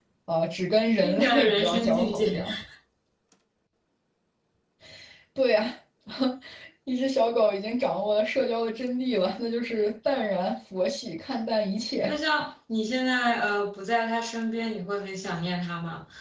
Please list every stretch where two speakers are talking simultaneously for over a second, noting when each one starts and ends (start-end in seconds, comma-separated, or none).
1.0-2.4